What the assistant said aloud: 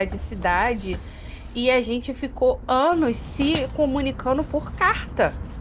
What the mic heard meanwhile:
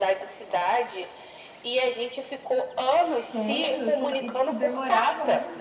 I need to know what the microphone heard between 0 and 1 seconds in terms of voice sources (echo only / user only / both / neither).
echo only